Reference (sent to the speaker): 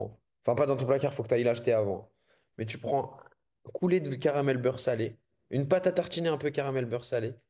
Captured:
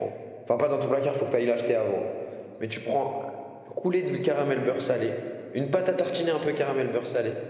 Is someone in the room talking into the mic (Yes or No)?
No